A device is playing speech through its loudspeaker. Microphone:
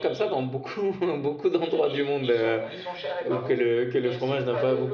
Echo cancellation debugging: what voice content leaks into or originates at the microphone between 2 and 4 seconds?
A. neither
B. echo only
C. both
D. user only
C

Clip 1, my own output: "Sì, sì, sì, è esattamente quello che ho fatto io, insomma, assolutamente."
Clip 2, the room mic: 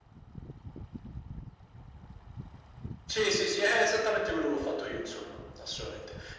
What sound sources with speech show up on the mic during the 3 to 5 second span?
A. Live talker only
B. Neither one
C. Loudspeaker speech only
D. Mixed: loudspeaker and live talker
C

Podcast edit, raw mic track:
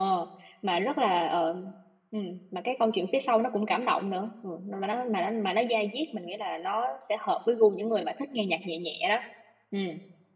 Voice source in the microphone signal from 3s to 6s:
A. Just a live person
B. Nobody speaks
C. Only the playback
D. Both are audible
A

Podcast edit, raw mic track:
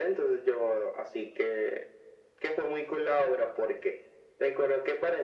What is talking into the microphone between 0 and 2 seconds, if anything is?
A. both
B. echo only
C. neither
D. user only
B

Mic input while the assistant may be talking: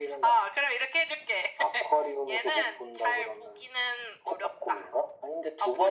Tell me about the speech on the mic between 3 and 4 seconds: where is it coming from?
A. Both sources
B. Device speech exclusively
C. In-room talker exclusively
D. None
B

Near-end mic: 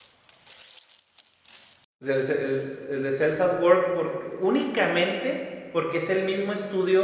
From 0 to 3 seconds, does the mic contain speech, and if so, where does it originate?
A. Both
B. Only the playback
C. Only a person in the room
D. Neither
C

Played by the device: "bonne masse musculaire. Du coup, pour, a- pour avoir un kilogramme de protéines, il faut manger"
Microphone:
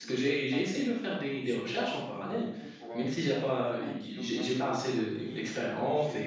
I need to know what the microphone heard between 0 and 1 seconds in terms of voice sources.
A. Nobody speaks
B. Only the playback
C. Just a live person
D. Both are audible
D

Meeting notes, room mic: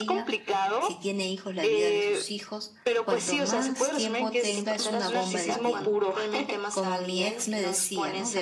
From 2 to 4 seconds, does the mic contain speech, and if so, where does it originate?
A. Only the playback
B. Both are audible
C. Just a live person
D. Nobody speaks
B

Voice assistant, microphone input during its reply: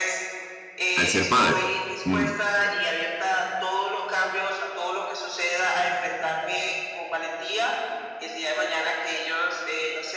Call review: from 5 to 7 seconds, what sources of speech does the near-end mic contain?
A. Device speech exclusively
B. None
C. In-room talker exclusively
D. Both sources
A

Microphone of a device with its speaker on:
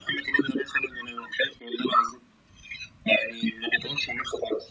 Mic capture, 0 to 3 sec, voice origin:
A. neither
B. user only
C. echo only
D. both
C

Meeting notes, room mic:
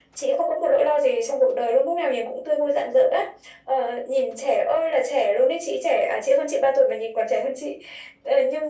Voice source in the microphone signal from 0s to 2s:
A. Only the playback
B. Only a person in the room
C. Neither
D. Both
A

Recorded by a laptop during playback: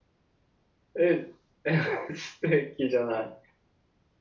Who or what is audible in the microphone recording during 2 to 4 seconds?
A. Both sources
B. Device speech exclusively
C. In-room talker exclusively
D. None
C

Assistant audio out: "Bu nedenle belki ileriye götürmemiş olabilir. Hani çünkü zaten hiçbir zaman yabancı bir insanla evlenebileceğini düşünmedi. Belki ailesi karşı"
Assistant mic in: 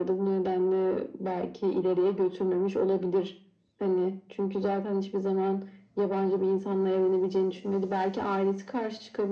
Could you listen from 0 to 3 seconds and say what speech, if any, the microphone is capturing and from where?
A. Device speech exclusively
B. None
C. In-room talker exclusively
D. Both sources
A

